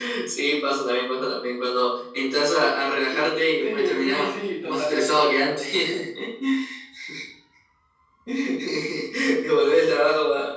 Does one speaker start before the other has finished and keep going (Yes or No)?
Yes